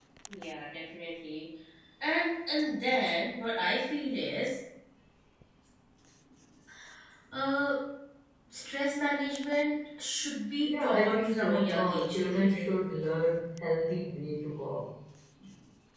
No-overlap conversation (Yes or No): No